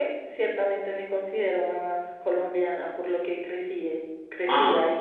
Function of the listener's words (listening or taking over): taking over